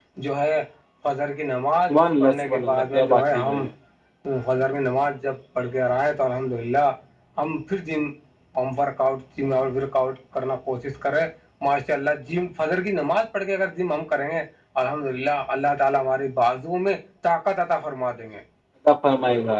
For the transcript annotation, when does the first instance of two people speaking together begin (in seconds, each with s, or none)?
1.9 s